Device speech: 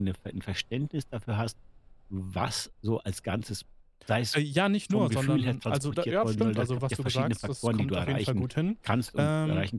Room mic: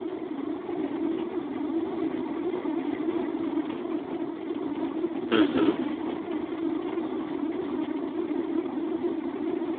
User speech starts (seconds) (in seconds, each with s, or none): 5.3 s